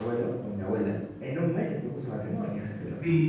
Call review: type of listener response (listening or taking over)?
taking over